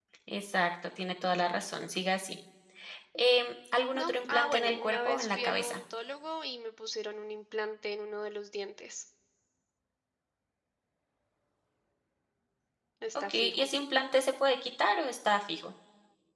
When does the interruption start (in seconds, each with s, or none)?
4.0 s